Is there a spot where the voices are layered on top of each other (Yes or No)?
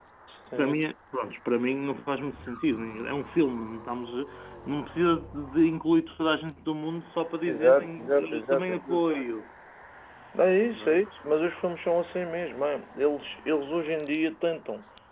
Yes